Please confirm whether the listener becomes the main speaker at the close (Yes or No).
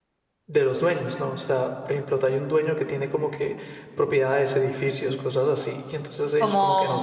Yes